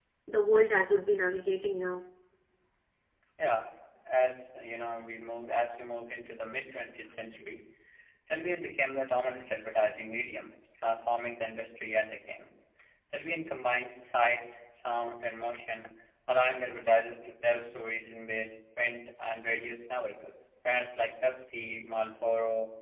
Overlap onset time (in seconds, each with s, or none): none